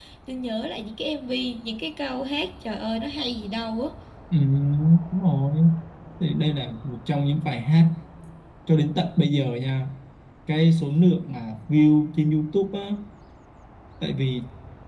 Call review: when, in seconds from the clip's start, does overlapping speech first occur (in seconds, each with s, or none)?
none